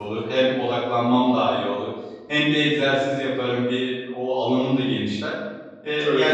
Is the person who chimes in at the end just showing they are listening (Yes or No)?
Yes